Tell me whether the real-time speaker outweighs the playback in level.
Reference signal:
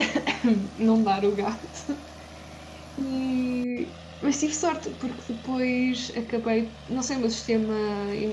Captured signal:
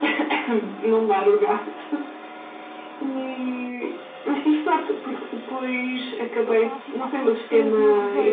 No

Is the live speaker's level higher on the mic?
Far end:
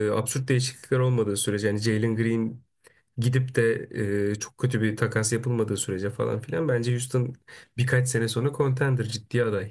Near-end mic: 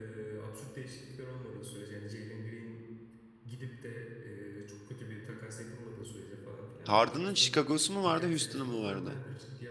Yes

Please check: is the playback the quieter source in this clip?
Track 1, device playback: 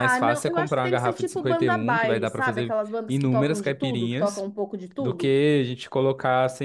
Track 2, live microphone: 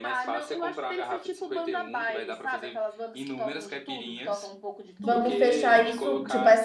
Yes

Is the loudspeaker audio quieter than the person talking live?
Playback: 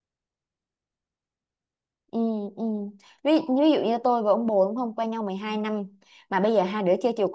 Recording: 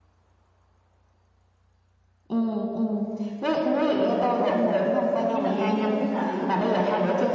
No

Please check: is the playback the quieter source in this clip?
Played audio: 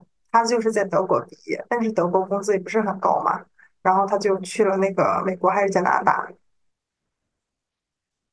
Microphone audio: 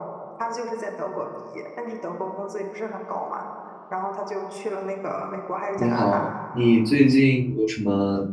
Yes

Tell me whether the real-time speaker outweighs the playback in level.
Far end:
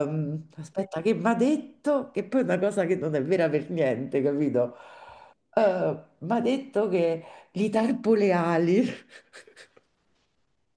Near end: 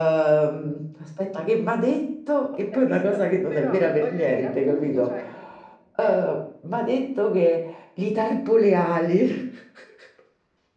No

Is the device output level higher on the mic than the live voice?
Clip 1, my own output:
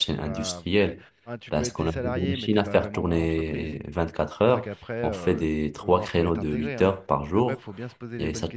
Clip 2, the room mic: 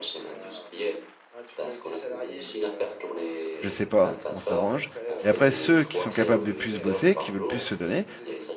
No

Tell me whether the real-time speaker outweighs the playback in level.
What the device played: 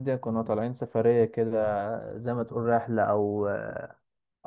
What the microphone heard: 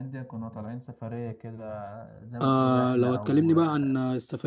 Yes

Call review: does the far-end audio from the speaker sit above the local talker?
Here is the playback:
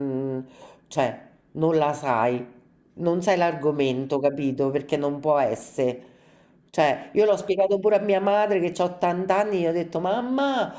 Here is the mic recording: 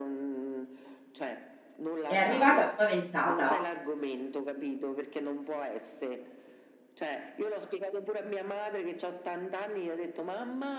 No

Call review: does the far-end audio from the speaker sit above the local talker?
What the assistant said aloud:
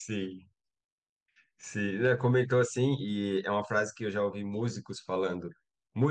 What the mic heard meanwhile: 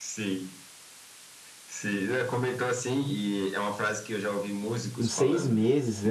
No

